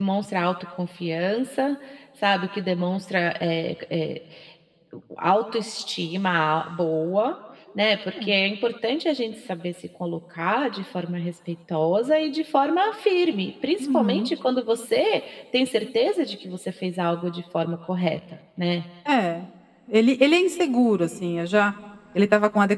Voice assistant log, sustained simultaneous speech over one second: none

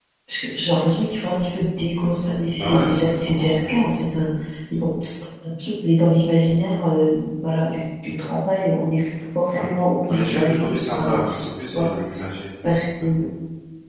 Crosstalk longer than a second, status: present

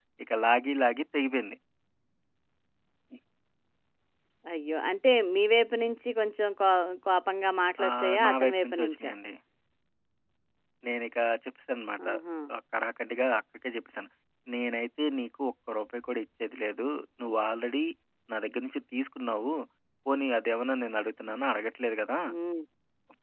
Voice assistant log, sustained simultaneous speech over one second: present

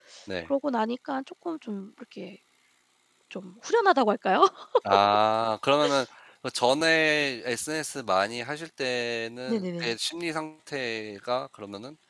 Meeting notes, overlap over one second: none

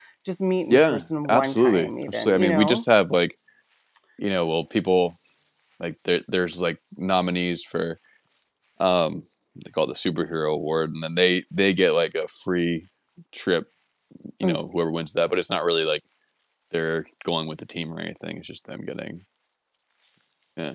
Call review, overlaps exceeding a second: present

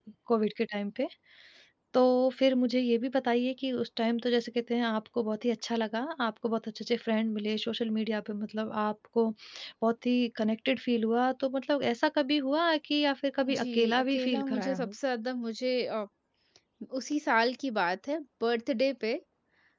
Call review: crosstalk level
present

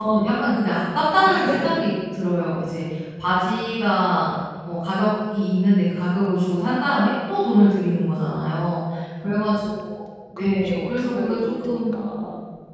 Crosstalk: present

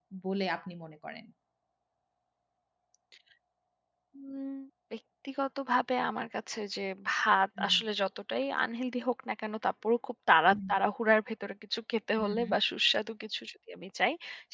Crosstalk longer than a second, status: none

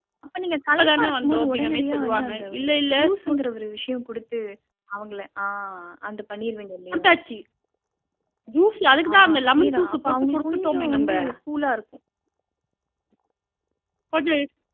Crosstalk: present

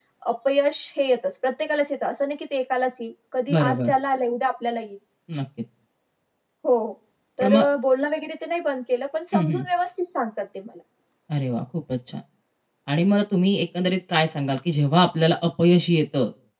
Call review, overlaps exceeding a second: none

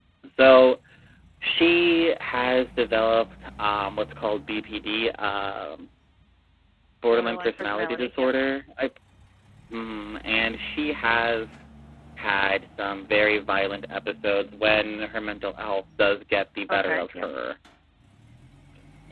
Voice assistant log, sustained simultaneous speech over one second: present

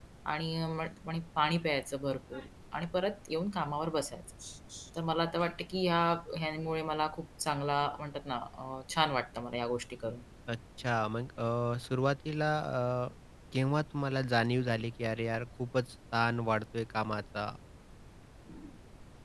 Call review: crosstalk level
none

